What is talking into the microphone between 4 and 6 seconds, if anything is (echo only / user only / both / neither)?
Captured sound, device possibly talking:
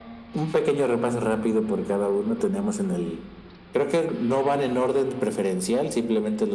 echo only